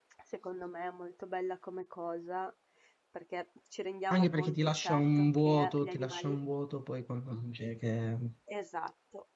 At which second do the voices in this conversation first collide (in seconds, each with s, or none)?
4.1 s